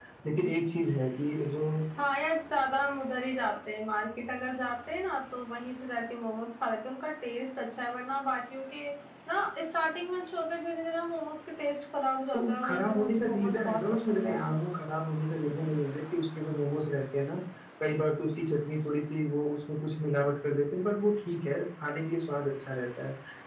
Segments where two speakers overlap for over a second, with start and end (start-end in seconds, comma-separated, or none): 12.3-14.5